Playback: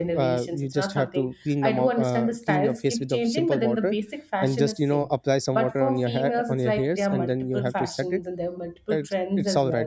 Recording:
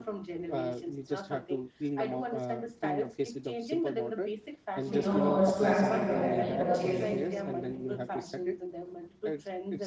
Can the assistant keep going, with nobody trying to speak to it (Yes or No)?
No